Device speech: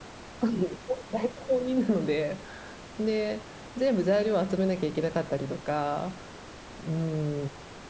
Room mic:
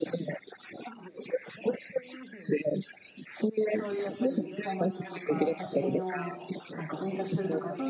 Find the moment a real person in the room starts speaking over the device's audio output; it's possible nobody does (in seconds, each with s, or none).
3.7 s